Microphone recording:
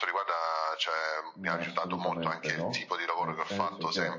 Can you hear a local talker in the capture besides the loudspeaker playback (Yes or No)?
Yes